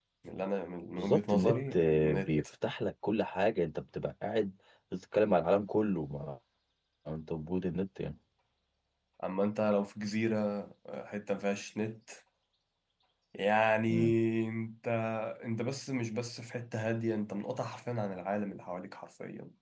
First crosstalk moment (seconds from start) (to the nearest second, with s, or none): 1 s